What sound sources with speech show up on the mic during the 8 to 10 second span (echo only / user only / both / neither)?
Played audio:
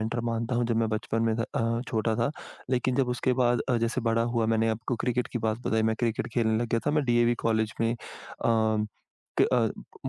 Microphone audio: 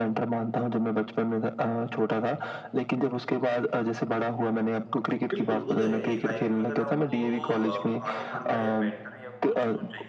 both